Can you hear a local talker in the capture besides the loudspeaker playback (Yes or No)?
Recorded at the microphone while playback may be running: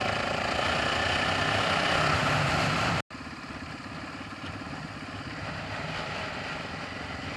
No